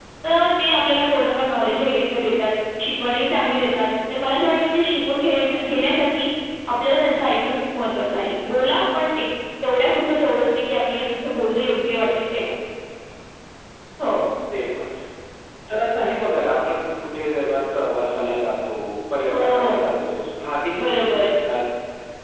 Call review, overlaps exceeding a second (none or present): none